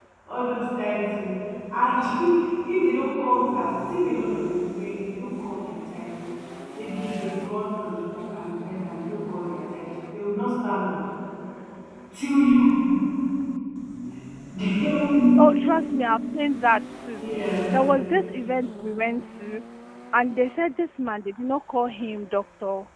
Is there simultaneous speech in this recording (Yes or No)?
No